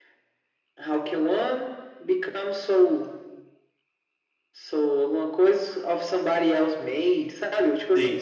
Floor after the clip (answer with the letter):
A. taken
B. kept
B